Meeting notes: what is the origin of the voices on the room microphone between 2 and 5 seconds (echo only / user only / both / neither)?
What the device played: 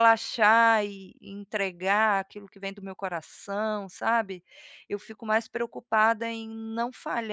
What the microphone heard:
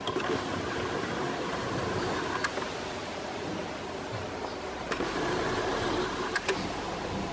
neither